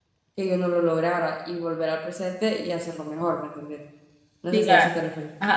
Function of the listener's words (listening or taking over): taking over